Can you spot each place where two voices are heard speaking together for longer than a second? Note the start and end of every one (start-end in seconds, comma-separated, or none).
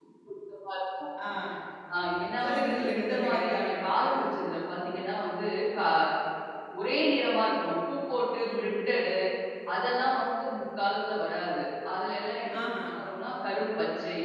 2.4-4.2